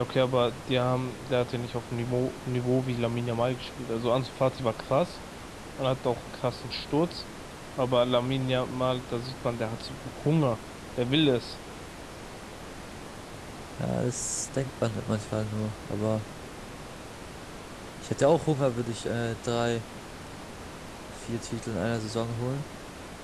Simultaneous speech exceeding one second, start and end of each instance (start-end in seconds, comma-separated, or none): none